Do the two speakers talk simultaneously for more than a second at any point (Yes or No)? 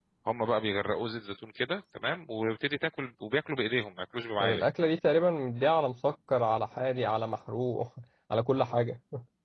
No